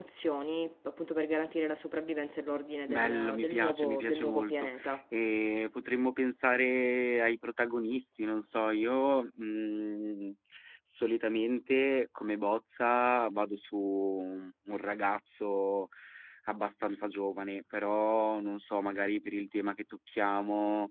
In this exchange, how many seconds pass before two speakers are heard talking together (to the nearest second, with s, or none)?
3 s